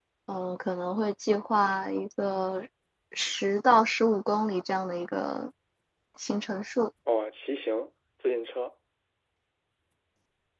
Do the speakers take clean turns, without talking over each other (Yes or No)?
Yes